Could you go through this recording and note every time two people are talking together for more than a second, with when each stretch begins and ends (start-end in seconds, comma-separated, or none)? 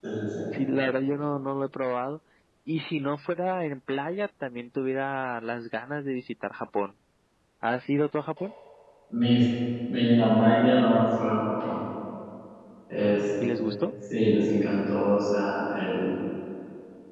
none